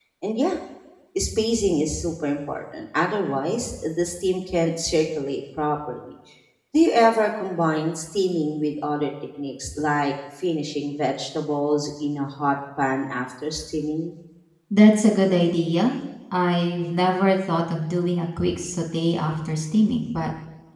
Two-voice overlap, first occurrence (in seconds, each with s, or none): none